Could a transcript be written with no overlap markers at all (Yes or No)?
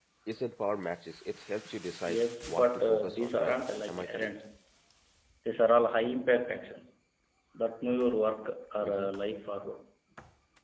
No